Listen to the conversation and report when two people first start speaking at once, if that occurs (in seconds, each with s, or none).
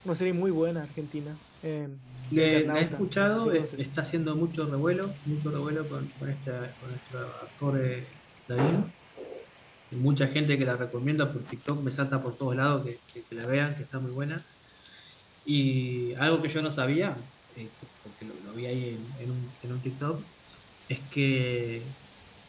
2.3 s